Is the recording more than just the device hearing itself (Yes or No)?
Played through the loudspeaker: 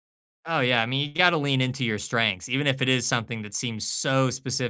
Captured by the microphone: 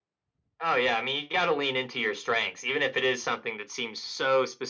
No